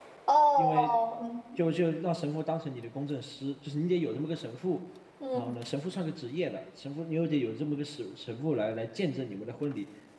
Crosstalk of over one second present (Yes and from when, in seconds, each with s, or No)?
No